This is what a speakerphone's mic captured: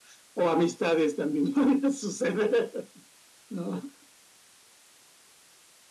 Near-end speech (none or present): none